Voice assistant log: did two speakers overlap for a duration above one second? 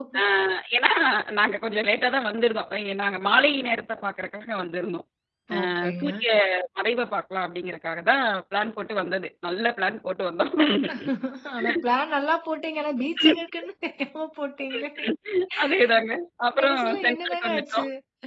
Yes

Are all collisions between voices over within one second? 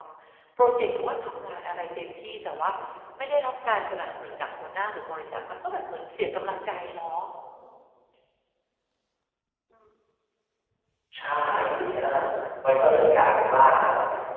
Yes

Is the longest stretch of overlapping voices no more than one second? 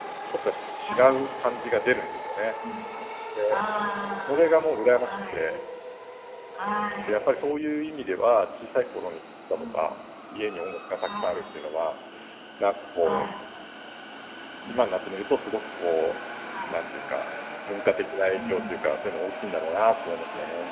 No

